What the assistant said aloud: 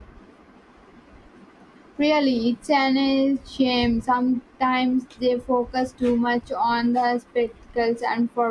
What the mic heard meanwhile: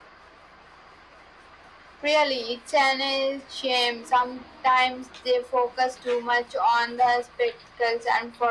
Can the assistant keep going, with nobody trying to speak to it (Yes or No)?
Yes